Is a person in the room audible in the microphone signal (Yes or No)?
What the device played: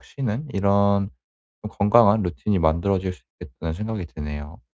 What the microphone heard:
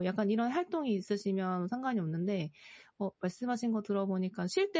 Yes